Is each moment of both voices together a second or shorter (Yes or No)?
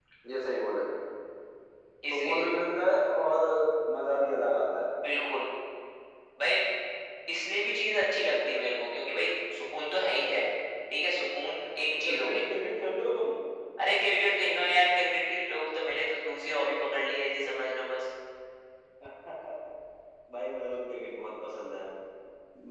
Yes